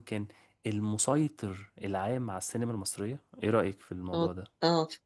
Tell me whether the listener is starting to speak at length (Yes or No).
Yes